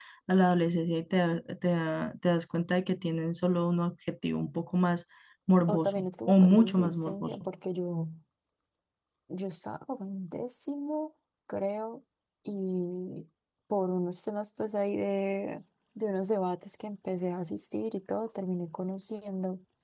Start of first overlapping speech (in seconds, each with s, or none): 5.7 s